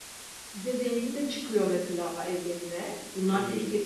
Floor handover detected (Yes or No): Yes